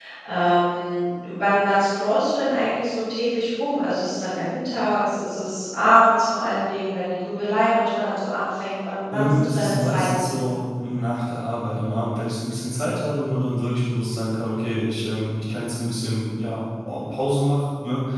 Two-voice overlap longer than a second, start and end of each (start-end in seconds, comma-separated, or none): 9.1-10.3